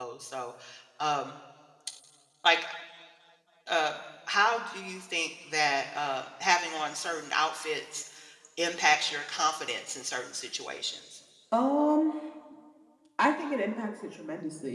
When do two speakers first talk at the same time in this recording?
none

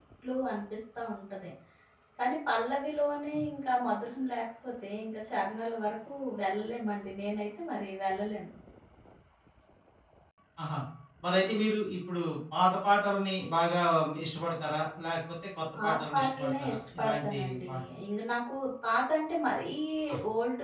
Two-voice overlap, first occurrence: 15.8 s

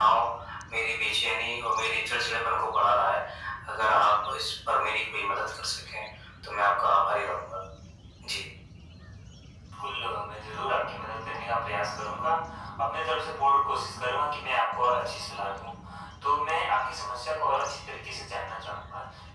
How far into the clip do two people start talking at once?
none

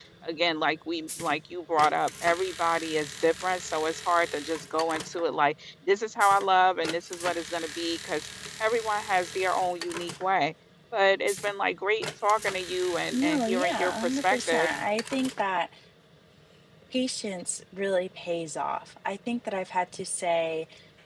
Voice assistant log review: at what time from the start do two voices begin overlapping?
13.1 s

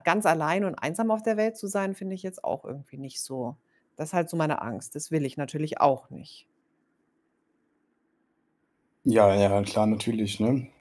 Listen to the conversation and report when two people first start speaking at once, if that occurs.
none

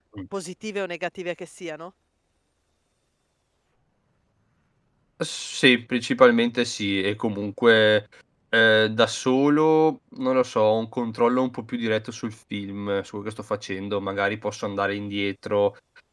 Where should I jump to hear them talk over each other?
none

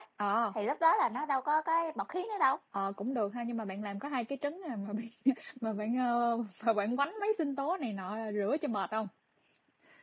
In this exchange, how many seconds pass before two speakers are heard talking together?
none

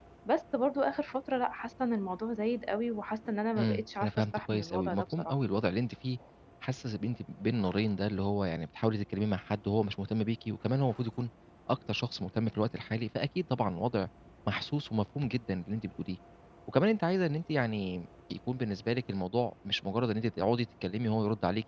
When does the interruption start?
3.6 s

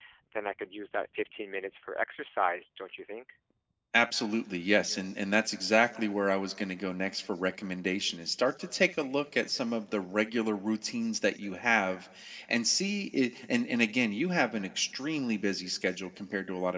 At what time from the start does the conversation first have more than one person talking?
none

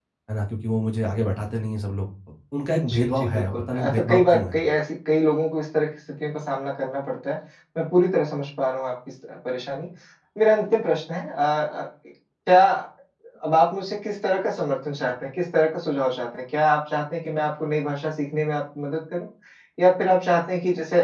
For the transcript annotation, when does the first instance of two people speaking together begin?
2.7 s

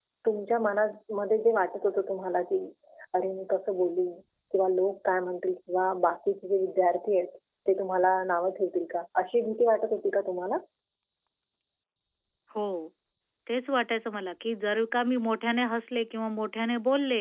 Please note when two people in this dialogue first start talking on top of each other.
none

